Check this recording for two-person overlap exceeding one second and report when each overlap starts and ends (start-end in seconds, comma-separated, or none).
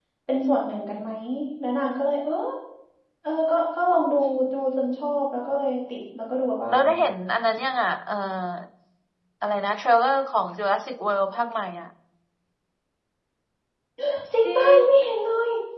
none